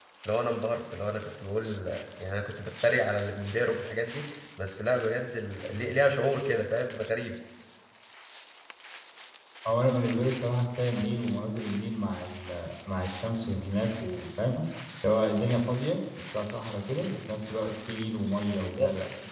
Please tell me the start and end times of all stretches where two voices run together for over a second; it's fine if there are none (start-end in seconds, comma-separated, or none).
none